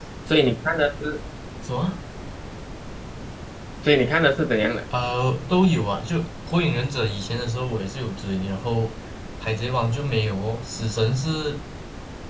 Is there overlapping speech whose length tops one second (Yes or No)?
No